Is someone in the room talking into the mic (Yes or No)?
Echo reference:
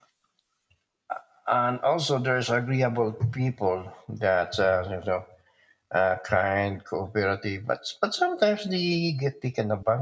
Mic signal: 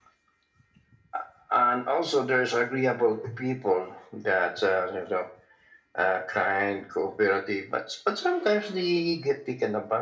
No